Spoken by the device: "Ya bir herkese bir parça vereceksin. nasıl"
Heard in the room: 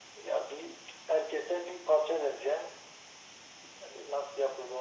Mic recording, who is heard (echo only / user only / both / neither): echo only